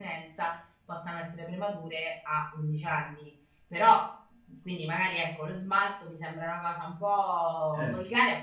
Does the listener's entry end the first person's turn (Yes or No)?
No